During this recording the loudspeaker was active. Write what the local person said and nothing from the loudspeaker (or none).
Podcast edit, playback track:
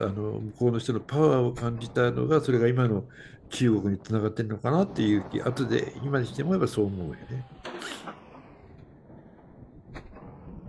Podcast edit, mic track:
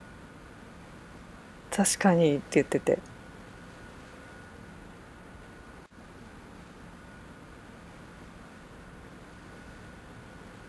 確かにって言ってて。